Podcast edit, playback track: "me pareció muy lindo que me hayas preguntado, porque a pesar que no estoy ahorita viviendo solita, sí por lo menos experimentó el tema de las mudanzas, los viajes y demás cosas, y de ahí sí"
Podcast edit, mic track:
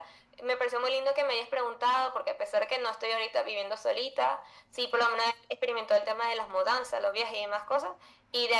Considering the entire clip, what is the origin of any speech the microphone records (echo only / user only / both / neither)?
echo only